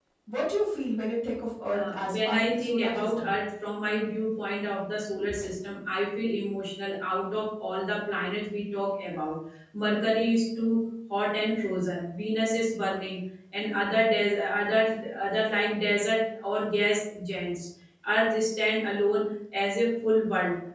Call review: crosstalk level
present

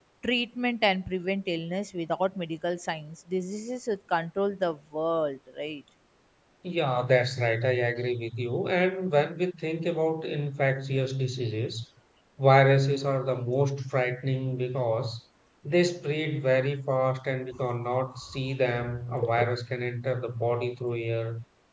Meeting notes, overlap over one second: none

